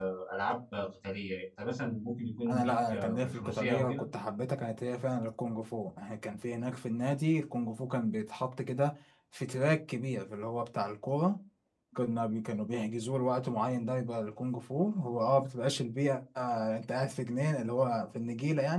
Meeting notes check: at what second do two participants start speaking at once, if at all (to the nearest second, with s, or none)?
2 s